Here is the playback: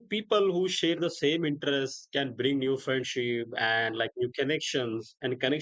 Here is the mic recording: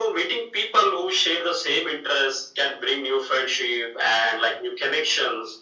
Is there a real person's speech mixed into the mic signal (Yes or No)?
No